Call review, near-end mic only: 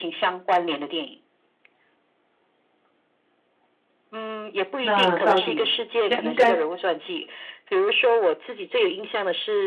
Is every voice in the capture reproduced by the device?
No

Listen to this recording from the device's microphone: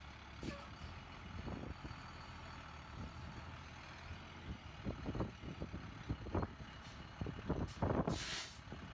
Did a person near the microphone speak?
No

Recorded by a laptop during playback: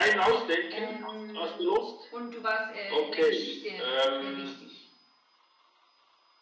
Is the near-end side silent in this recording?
No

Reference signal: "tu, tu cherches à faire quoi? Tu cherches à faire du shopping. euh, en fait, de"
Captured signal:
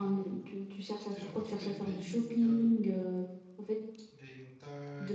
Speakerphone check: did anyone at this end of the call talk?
Yes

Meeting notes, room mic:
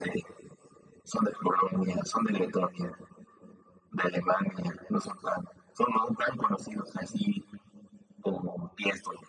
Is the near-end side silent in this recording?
Yes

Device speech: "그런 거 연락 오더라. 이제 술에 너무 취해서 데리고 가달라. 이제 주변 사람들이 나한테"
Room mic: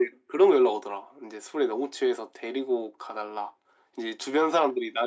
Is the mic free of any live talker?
Yes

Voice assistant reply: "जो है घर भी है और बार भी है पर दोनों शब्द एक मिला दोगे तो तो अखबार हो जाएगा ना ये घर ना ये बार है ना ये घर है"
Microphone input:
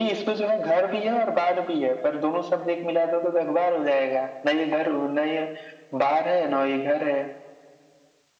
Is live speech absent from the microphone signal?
Yes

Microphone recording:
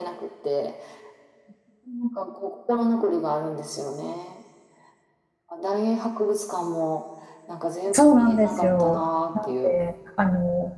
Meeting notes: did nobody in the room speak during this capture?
No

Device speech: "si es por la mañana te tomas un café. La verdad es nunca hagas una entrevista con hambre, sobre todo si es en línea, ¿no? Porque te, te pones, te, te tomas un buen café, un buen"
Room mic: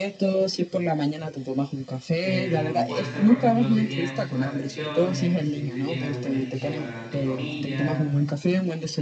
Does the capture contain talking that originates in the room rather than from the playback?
Yes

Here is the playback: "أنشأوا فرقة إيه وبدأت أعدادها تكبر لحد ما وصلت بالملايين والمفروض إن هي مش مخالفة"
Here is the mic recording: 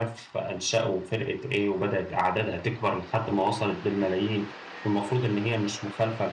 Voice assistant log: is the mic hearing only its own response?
Yes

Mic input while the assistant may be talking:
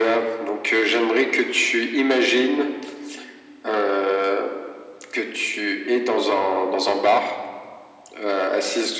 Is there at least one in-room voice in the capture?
No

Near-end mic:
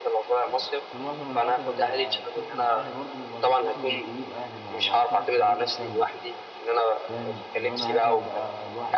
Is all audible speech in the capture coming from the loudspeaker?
No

